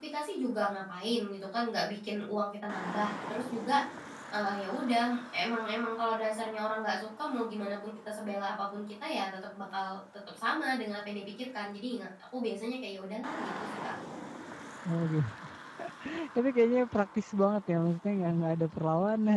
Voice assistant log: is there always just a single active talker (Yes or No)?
Yes